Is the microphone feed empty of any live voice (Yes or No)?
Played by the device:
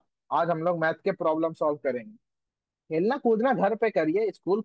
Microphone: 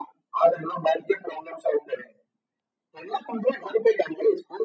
Yes